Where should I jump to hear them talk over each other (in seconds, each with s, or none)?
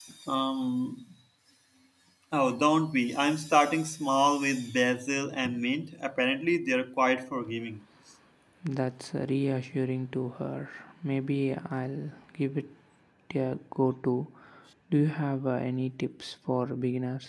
none